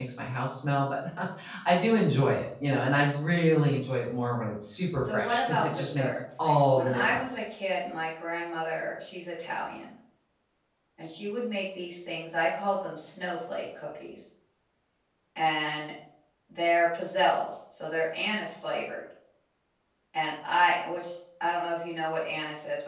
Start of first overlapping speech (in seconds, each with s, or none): 5.0 s